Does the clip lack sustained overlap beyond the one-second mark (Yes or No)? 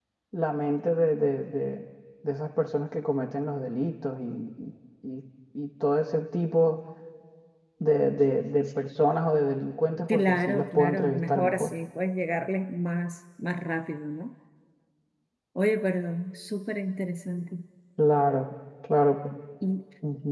No